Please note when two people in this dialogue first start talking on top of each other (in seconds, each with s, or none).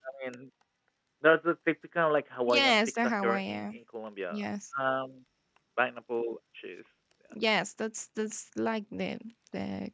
2.5 s